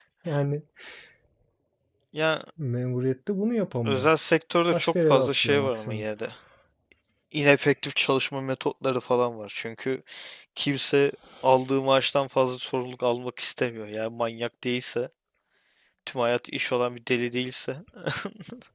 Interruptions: present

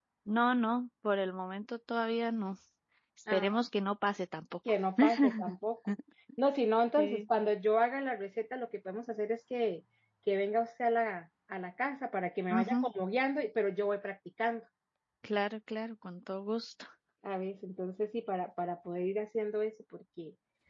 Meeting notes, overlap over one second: none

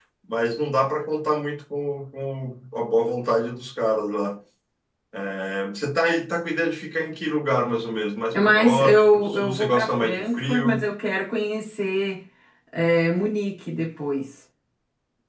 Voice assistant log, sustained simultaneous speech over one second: present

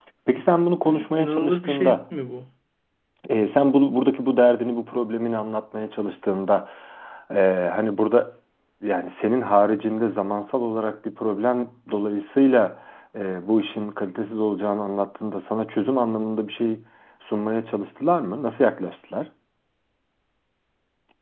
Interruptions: present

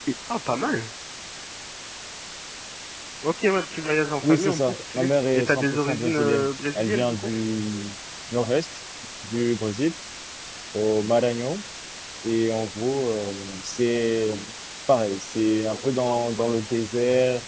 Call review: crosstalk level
present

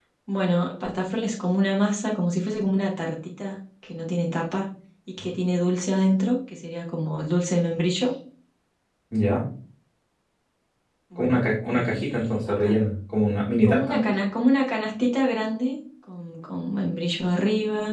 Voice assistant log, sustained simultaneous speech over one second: present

